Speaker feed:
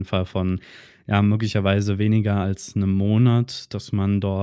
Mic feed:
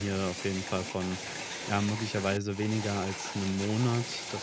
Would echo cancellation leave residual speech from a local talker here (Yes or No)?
No